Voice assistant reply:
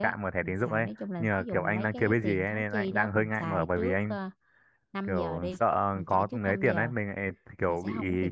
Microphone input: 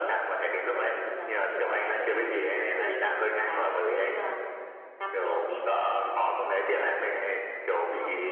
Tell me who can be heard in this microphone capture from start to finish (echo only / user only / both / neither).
echo only